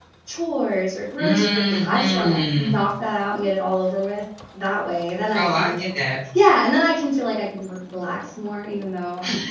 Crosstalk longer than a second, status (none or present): present